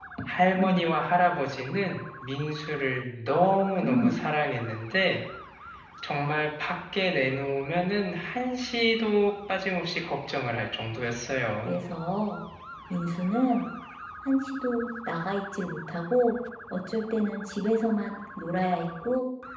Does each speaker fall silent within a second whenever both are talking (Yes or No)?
Yes